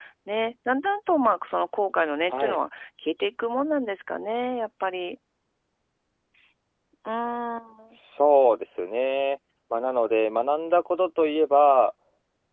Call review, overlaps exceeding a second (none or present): none